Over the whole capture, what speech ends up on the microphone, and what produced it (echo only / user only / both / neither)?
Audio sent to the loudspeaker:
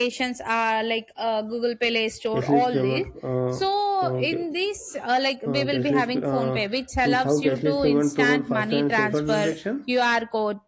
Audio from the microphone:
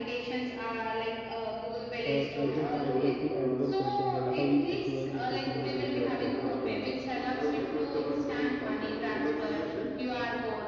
both